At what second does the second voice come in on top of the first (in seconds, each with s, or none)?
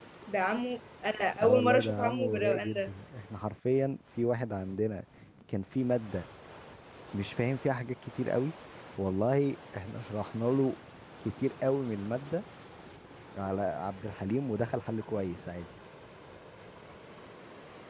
1.4 s